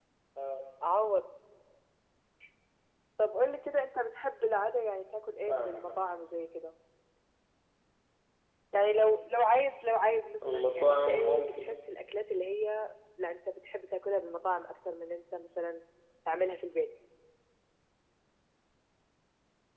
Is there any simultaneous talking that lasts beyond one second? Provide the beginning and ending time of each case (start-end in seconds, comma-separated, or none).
10.5-11.7